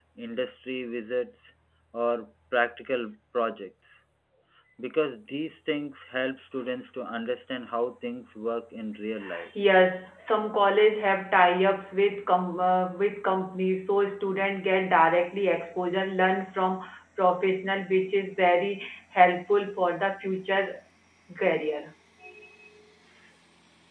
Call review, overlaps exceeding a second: none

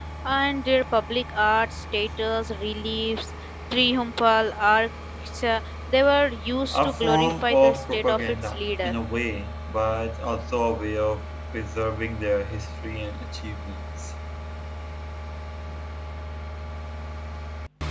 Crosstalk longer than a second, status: present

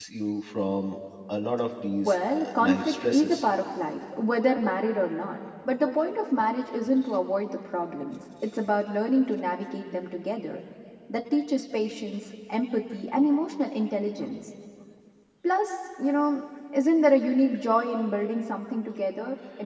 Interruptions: present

